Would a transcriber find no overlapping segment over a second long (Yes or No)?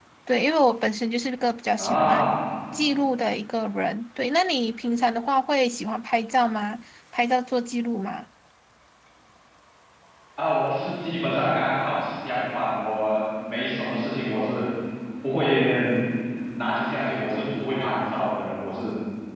Yes